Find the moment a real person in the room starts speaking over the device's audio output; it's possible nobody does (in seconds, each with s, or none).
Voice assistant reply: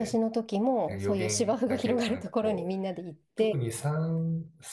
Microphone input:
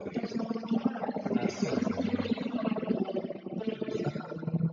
1.3 s